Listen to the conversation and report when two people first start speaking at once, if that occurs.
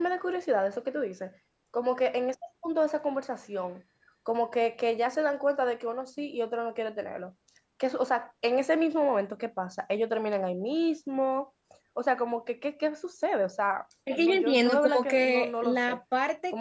14.1 s

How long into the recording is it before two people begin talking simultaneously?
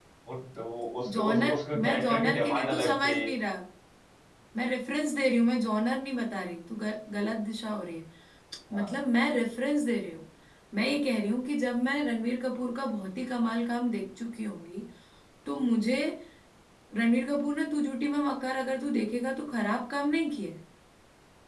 1.1 s

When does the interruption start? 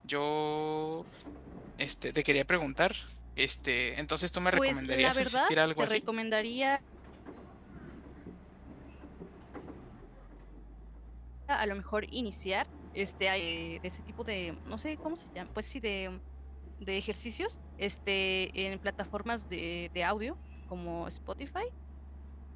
4.5 s

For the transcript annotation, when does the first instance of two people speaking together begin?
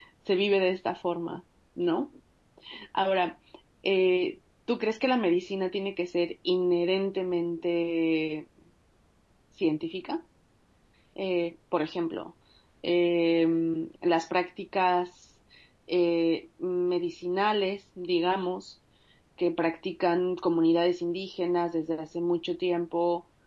none

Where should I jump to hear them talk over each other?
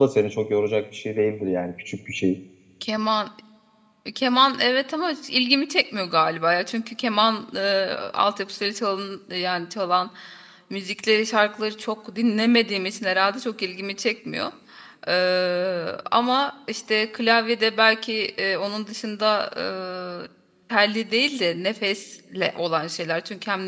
none

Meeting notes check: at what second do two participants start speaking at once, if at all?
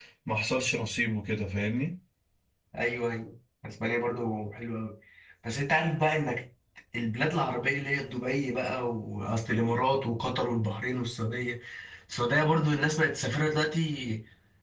none

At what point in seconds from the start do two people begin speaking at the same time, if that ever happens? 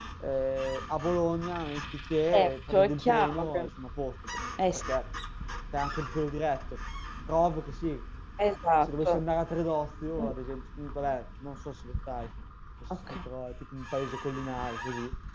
2.3 s

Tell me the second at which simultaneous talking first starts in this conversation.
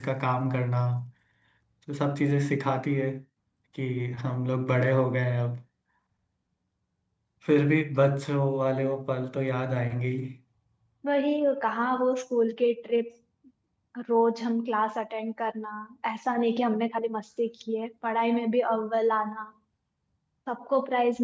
none

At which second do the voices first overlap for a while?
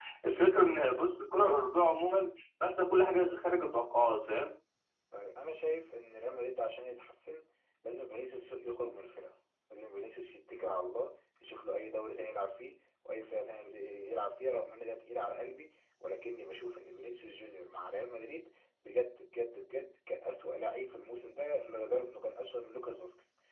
none

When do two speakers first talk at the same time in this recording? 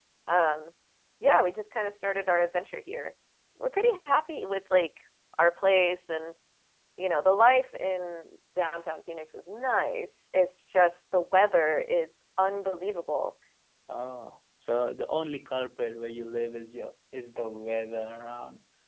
none

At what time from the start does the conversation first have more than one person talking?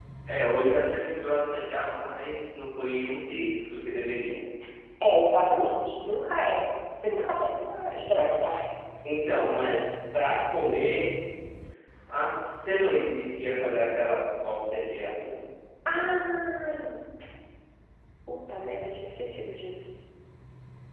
7.2 s

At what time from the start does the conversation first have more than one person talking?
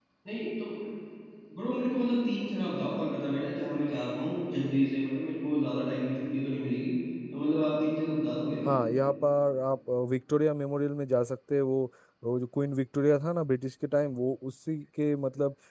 none

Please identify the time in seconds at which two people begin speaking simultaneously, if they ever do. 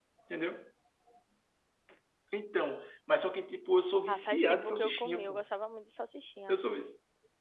4.1 s

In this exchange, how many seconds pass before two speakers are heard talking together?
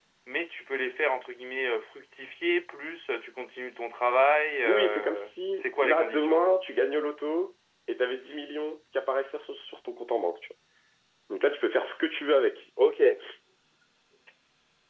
4.6 s

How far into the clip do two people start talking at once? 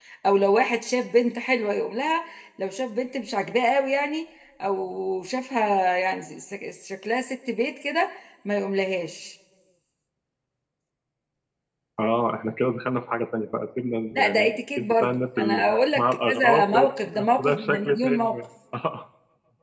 14.2 s

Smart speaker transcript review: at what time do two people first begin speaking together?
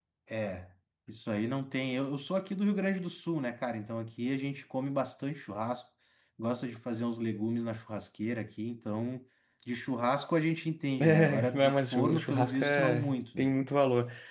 11.0 s

